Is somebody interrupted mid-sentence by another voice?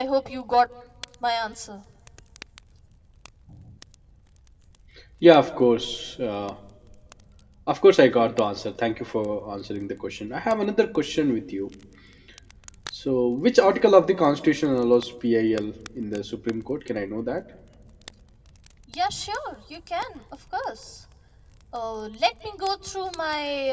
No

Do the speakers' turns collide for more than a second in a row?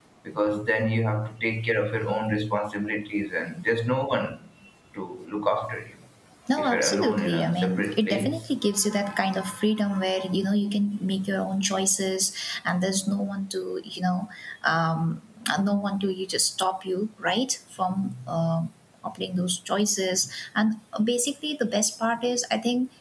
Yes, from 6.6 s

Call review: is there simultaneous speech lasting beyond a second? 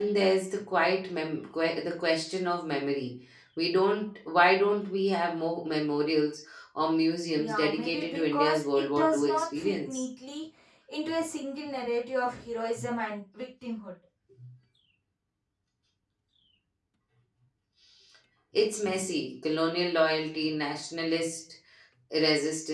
Yes, from 7.4 s

